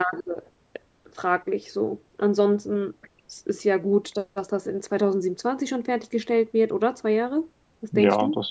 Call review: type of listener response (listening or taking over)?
taking over